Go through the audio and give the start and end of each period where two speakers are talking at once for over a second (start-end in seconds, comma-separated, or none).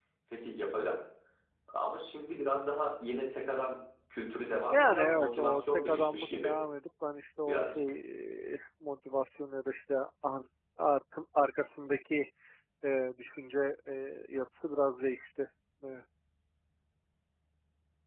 4.7-6.5